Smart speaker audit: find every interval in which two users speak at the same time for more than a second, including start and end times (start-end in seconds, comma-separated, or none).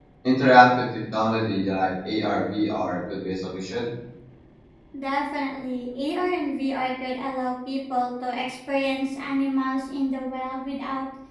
none